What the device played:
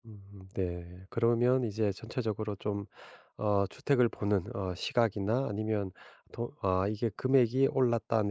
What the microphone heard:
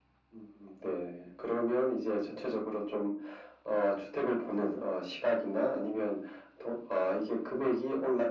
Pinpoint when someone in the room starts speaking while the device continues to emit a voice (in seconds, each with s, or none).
none